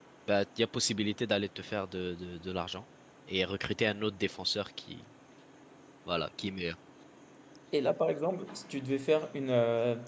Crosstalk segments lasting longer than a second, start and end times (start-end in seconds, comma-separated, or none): none